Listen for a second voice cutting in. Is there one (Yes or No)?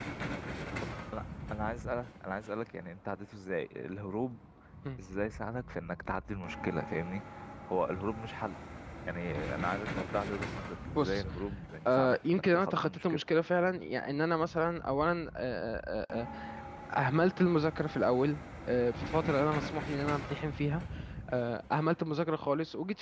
Yes